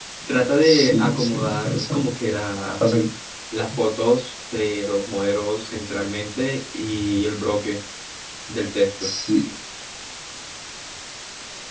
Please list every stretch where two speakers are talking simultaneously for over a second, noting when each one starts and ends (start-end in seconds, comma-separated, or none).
0.6-2.1